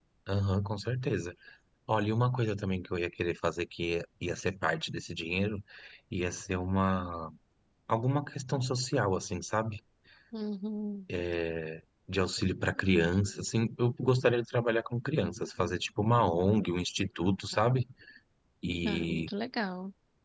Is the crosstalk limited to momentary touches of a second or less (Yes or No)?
Yes